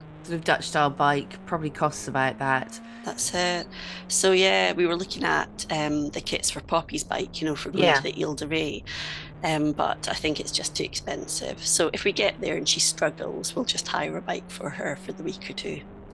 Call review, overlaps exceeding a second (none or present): none